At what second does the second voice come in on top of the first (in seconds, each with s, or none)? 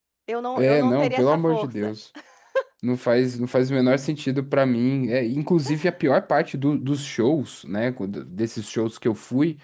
0.6 s